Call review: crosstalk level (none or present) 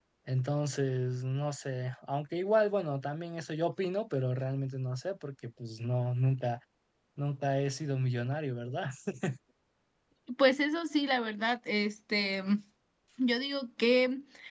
none